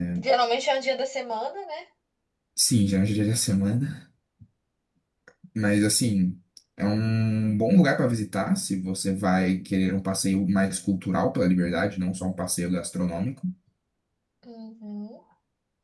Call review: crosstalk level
none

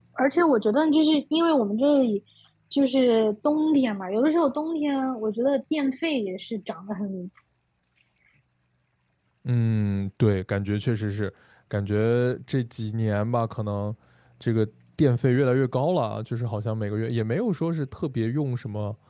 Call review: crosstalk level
none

